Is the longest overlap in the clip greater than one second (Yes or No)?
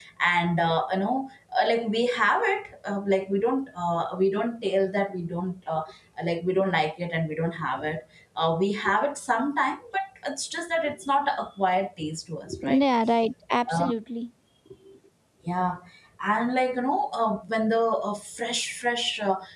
No